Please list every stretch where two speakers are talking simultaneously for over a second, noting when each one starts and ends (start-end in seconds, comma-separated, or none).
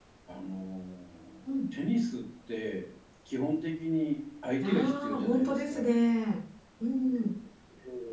4.6-5.9